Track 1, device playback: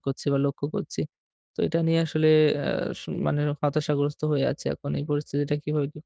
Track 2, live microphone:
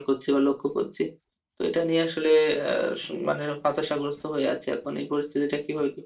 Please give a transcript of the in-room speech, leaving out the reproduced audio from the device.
none

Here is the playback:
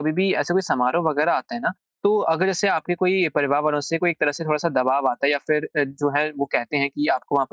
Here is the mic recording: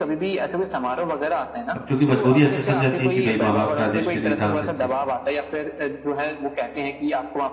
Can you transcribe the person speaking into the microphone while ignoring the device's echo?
अब चूँकि मजबूरी ऐसी फँस जाती है कि भई माँ-बाप का आदेश भी नहीं टाल सकते।

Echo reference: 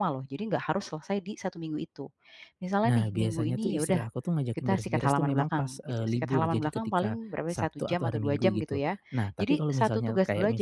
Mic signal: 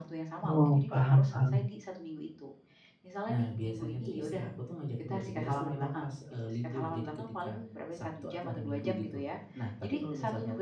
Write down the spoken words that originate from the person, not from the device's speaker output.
Oh, paham paham.

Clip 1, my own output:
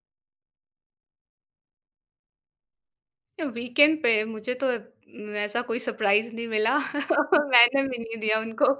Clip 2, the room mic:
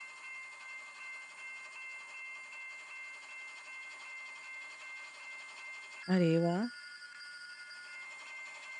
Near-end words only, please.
अरे वाह!

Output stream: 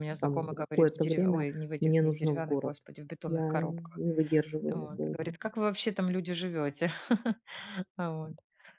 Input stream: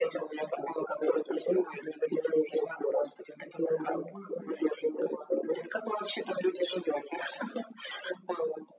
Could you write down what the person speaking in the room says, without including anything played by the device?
Мгм.

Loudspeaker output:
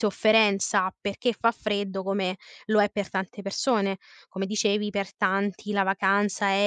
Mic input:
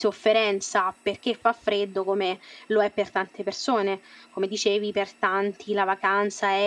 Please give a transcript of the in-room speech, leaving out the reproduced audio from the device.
none

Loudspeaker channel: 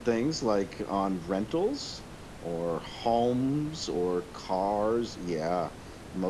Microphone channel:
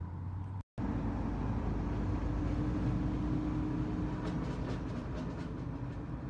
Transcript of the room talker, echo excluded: none

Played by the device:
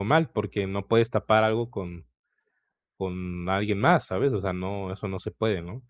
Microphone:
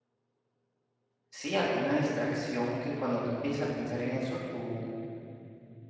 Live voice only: Sí, alguna distracción que cuando tú empieces a pensar en eso, tú

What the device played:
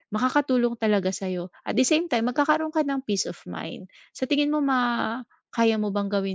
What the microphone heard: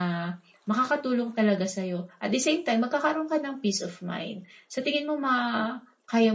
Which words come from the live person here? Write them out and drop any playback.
none

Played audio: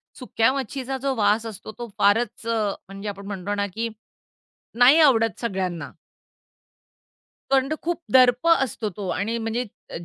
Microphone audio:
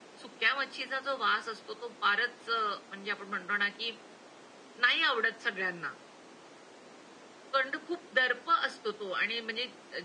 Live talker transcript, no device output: none

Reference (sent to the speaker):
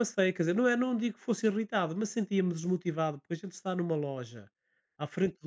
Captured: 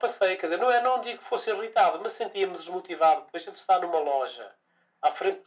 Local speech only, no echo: none

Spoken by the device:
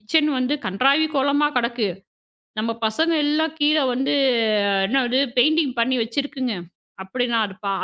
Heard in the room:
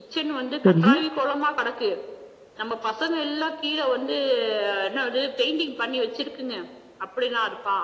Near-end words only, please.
சரி,

